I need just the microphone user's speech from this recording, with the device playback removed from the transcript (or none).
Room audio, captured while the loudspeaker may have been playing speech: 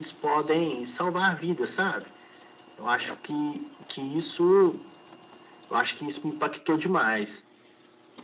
none